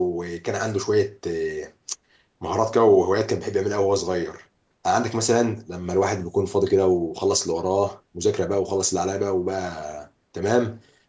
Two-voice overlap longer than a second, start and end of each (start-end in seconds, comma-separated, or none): none